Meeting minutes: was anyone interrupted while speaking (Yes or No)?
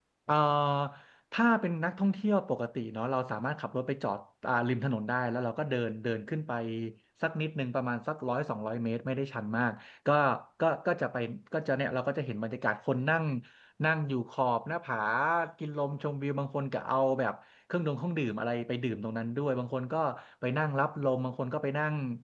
No